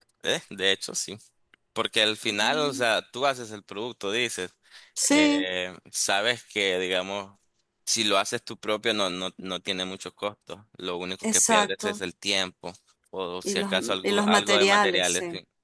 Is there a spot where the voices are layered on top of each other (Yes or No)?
Yes